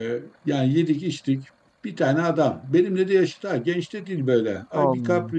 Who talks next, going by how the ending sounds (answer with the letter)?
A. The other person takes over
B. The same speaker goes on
B